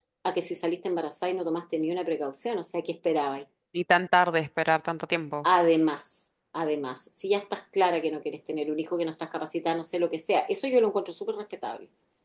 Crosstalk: none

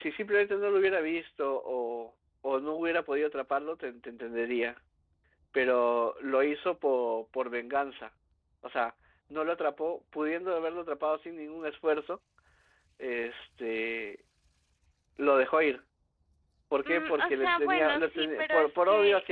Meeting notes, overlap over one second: present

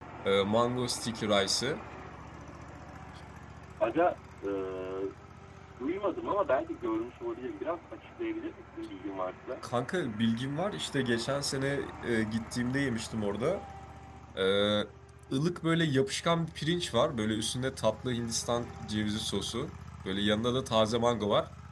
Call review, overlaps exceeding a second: none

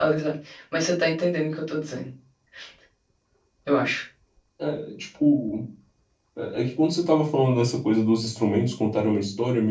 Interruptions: none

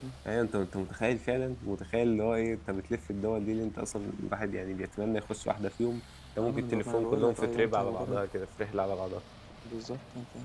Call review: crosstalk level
present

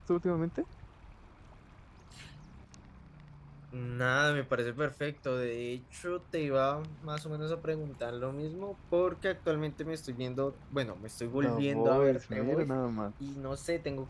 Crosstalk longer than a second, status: present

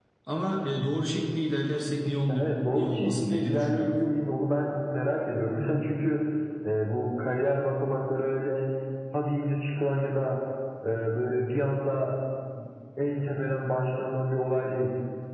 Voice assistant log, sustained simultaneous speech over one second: present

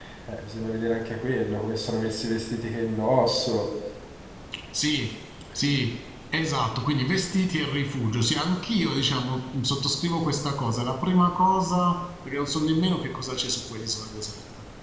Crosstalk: none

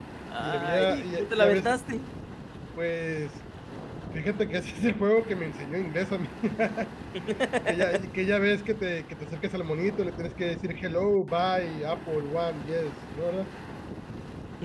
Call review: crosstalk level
present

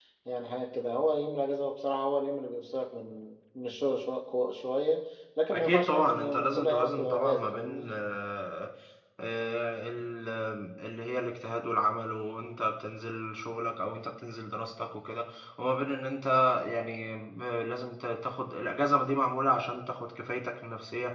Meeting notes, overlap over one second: present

